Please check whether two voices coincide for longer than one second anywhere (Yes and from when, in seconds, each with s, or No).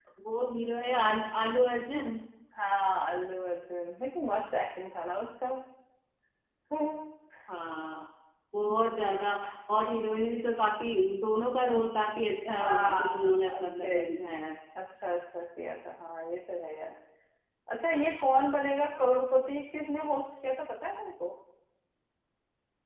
Yes, from 12.4 s